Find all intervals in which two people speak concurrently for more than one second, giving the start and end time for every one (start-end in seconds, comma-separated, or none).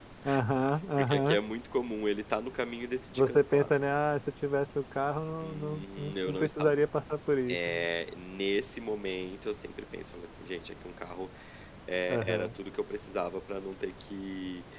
5.4-6.7